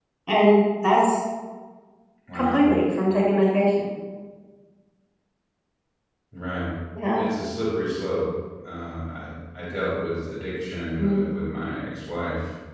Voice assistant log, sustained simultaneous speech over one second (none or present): none